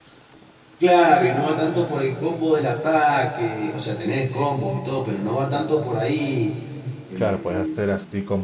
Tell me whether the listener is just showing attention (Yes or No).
No